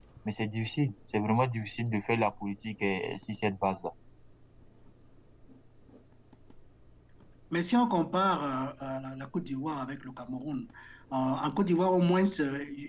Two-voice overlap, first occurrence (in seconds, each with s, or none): none